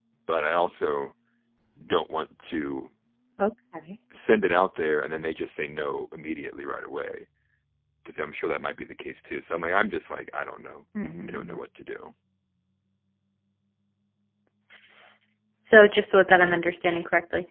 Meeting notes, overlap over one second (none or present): none